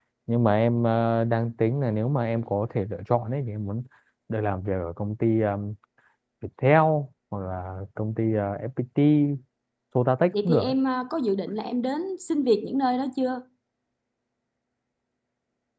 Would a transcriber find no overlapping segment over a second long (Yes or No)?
Yes